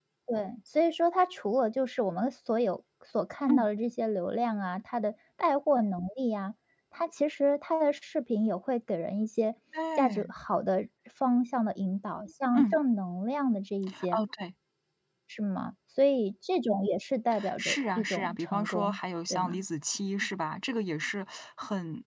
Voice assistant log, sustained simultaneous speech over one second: present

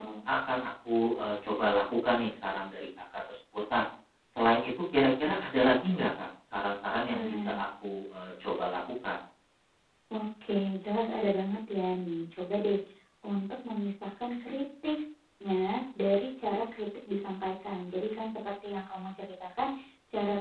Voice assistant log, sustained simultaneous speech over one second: none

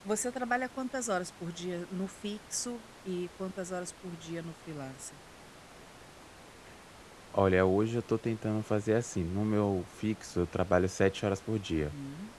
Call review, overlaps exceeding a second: none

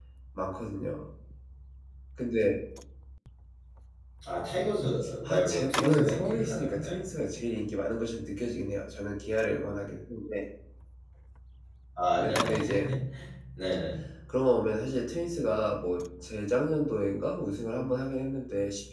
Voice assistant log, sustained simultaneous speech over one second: present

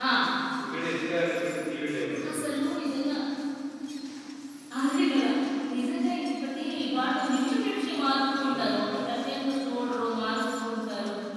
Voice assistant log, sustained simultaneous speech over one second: none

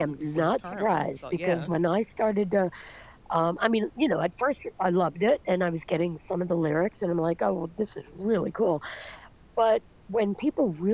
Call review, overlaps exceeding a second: present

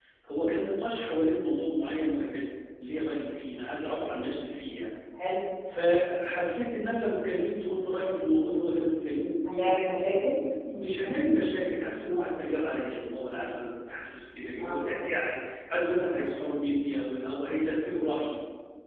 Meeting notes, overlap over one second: none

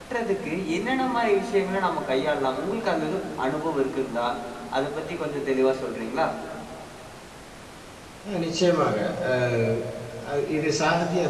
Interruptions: none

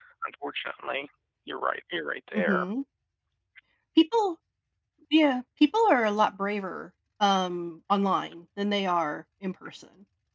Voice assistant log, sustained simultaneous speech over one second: none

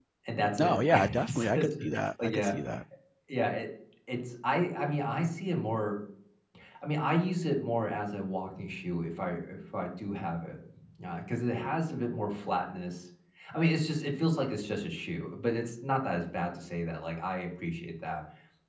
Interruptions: present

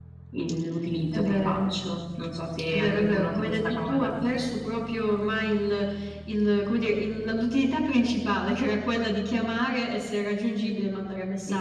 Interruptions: present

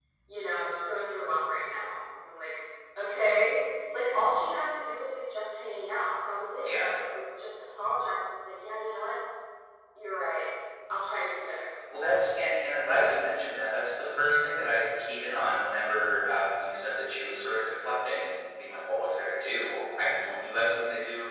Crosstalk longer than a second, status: none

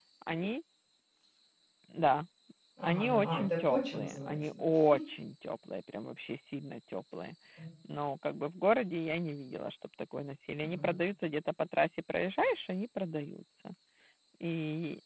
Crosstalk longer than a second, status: present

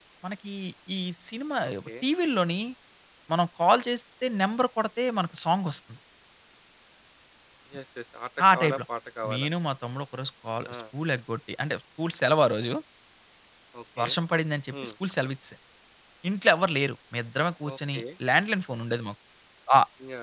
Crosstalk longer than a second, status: none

